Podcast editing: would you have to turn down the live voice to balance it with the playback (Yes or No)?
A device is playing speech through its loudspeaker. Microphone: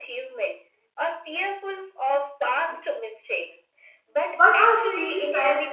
Yes